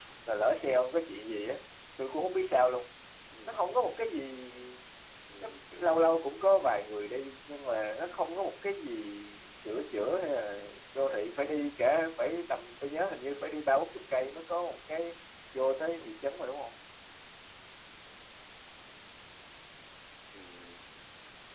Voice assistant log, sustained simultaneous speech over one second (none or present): none